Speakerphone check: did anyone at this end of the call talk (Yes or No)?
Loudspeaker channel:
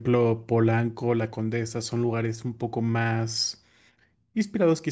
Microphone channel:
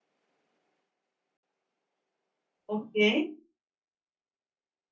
Yes